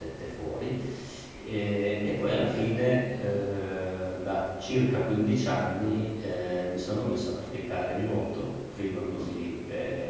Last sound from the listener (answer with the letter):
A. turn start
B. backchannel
B